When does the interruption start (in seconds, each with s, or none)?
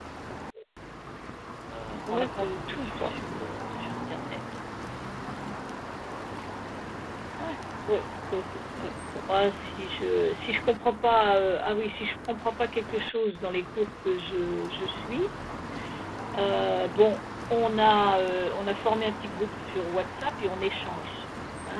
2.1 s